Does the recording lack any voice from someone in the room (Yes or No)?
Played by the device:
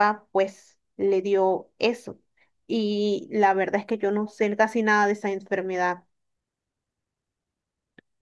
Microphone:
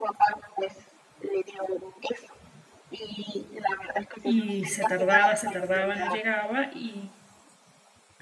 No